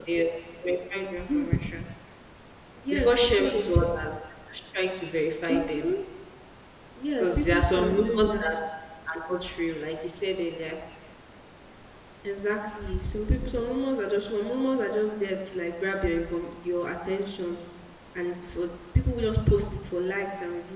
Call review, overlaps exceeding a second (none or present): present